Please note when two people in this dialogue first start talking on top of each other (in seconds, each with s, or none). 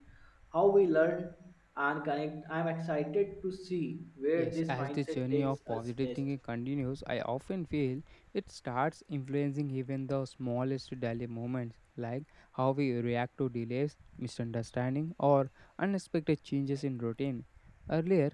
4.4 s